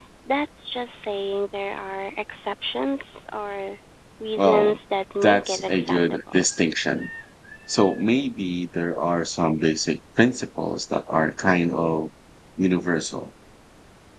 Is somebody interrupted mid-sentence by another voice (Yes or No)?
Yes